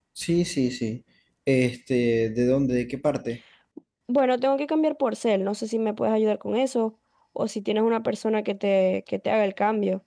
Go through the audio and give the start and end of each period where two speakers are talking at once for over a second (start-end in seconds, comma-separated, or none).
none